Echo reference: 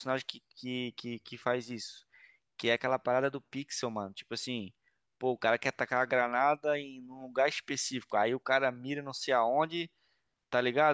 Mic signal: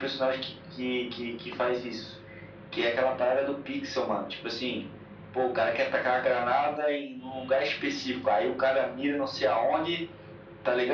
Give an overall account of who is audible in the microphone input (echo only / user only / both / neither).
echo only